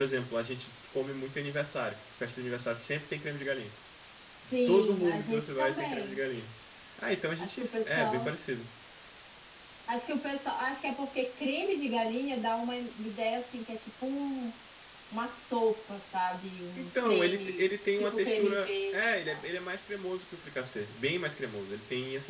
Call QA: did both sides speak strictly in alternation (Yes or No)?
No